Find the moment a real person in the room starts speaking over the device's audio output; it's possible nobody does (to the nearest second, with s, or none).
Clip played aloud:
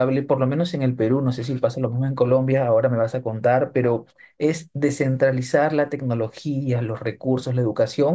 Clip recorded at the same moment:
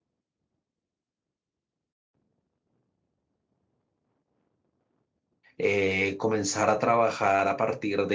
6 s